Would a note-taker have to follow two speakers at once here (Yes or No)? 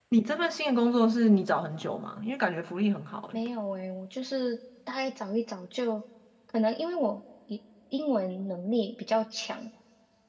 No